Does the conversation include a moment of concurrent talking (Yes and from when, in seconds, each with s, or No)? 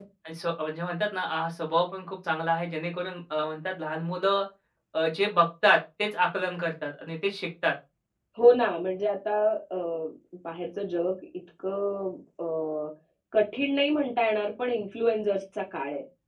No